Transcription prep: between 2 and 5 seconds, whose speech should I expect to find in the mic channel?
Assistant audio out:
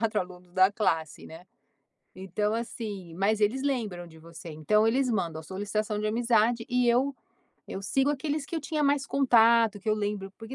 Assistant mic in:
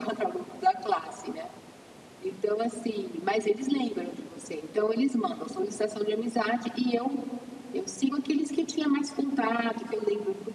echo only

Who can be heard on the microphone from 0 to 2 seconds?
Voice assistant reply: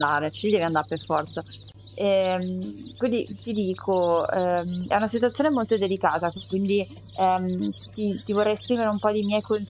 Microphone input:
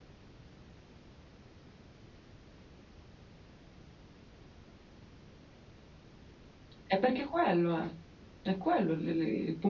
neither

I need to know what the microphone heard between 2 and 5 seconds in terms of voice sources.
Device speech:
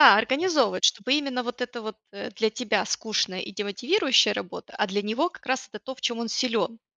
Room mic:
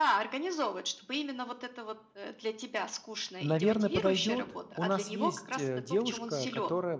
both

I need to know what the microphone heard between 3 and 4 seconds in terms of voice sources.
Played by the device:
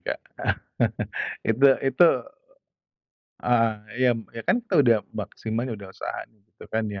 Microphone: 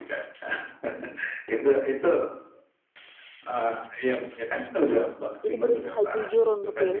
echo only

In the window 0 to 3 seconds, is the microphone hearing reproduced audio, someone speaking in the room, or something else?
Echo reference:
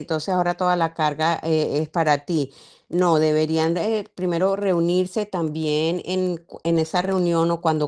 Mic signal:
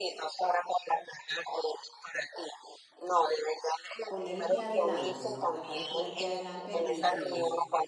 echo only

